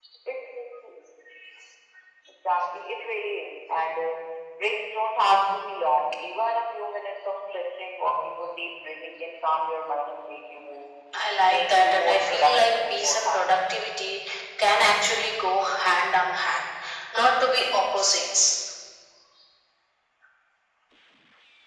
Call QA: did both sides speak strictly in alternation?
No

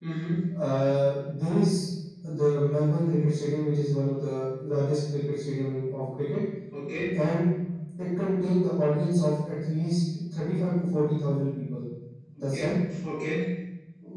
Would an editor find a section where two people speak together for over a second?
No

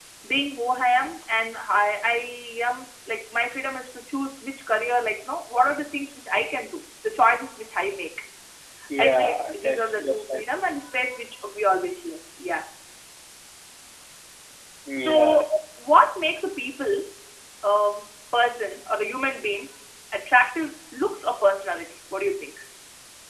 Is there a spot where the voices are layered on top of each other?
Yes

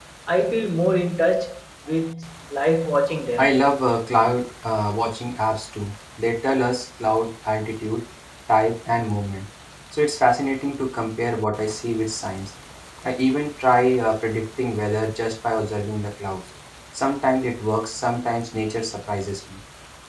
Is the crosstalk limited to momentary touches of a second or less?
Yes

